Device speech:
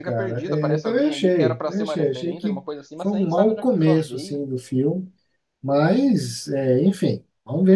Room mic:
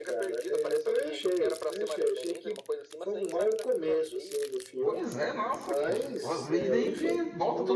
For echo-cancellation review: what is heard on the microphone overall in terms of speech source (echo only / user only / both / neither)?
both